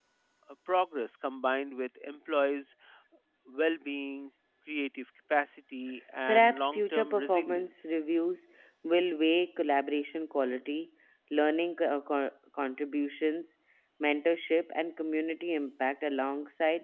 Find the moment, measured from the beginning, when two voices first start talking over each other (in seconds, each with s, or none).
6.3 s